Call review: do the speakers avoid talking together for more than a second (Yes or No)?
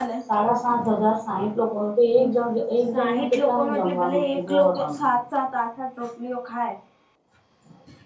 No